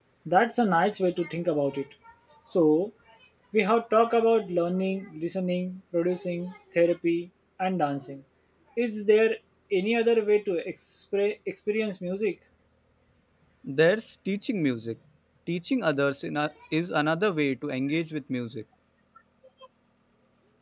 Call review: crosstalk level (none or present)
none